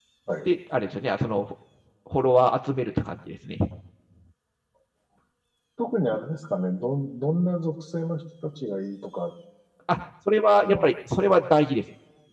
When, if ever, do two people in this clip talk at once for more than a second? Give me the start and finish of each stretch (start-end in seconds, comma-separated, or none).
none